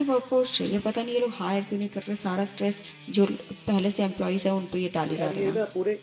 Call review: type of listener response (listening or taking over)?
taking over